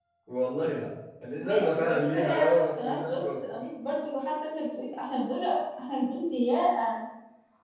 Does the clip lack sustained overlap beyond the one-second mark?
No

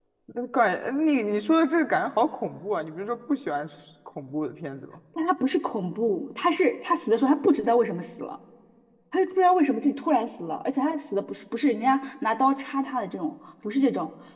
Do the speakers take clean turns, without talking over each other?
Yes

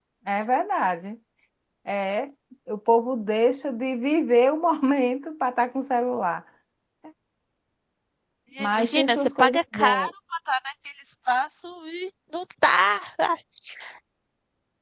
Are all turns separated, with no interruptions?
No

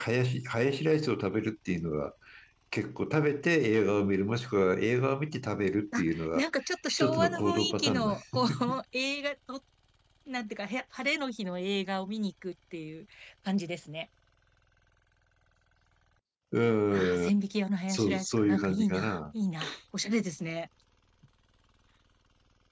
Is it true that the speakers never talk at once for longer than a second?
No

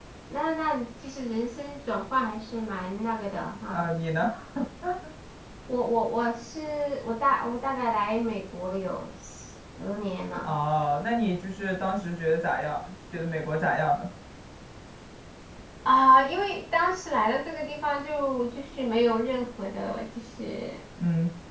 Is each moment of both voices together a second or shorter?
Yes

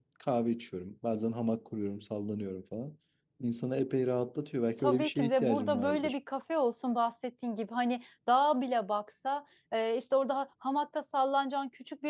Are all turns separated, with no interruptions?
No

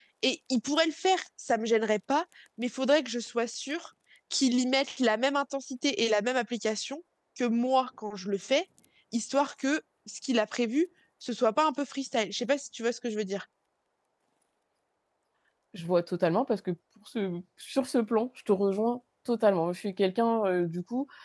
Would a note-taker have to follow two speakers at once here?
No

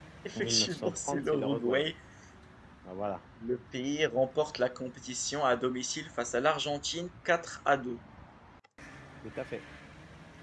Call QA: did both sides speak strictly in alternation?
No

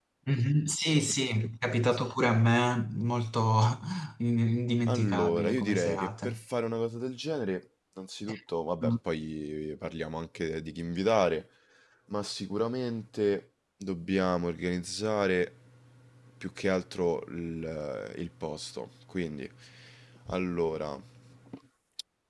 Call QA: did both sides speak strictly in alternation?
No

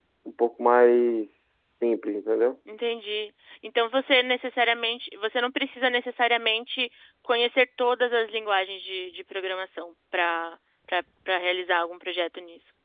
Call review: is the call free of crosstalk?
Yes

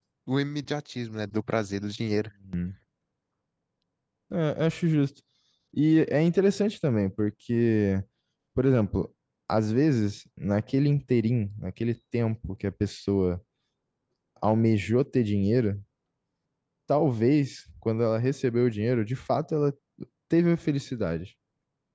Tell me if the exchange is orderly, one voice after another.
Yes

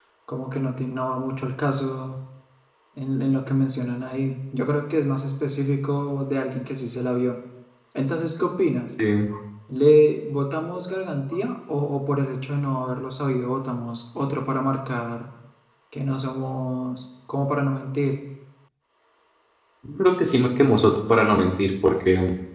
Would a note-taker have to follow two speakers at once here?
No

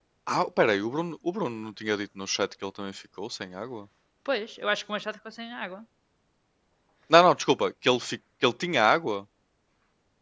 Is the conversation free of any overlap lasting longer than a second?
Yes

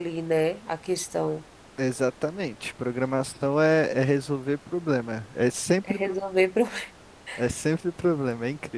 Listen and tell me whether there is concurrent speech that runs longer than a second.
No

